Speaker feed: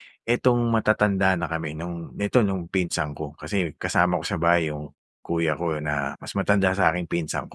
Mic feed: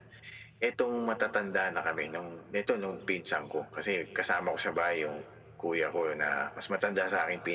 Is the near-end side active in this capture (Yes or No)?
No